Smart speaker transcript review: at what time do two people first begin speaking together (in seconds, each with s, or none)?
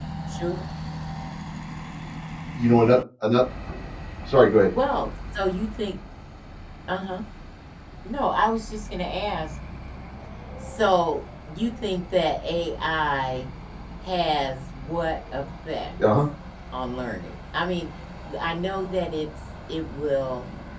none